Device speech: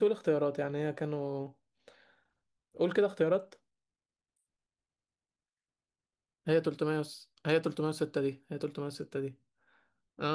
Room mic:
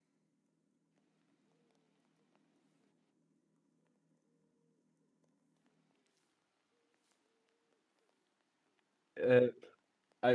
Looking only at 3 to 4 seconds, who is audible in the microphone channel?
neither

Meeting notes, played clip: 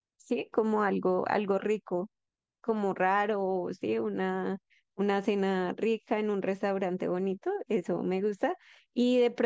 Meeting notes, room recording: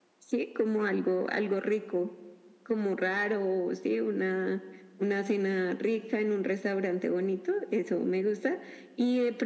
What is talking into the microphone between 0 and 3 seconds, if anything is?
echo only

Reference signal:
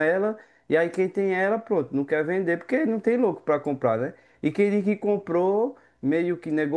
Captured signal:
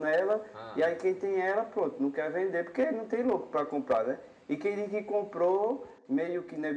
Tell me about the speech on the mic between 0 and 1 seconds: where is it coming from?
both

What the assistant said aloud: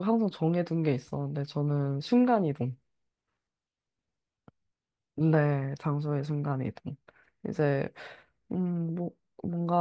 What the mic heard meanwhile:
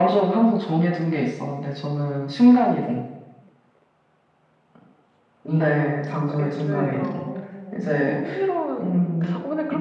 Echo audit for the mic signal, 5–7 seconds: both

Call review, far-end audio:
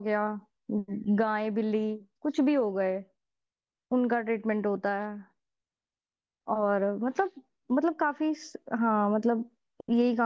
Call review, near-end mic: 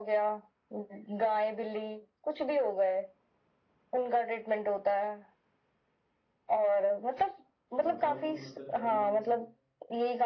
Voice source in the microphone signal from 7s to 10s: both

